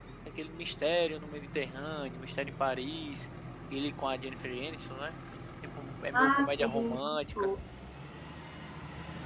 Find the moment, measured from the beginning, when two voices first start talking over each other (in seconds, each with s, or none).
6.1 s